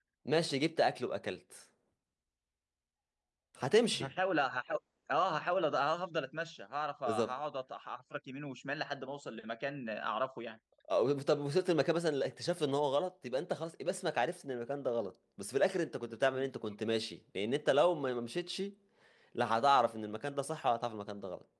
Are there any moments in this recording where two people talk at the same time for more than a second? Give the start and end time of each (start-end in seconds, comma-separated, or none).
none